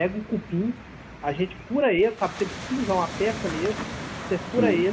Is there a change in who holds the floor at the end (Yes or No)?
No